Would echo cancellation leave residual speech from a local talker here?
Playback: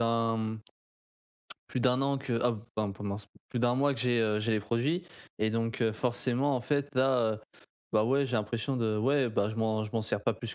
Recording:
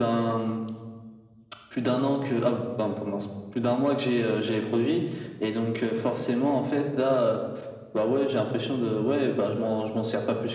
No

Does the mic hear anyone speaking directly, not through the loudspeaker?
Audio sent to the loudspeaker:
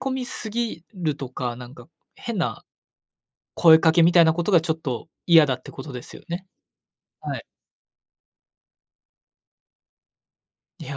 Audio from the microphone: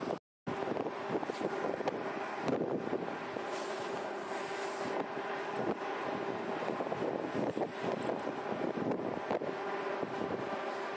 No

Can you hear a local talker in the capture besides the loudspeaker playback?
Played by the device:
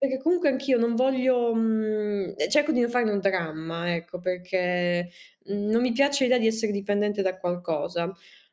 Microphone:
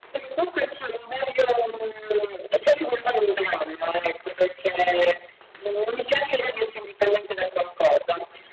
No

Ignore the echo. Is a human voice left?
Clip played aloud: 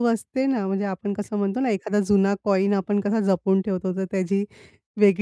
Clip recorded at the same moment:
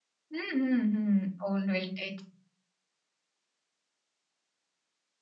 Yes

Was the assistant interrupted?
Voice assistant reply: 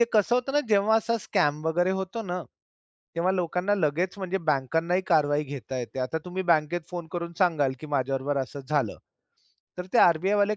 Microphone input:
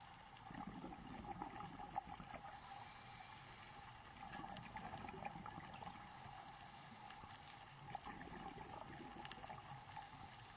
No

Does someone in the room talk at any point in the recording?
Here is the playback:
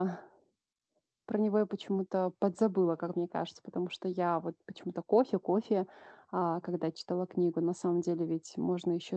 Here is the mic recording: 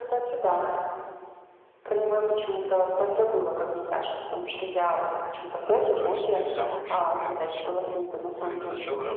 Yes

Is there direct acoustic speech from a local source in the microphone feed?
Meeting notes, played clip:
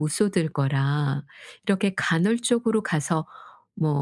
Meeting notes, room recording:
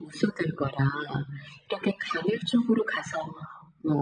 No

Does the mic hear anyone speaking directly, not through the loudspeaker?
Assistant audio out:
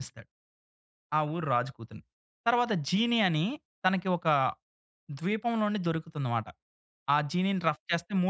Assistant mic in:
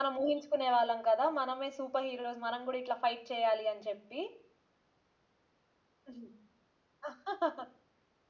Yes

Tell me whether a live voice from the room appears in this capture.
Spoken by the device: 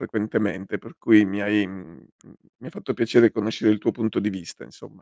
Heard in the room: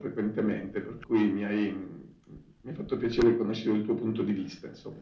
No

